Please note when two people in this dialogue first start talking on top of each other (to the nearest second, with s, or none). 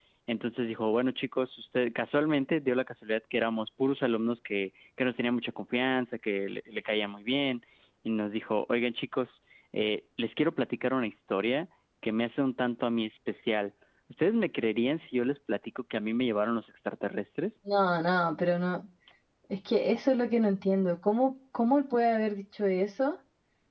none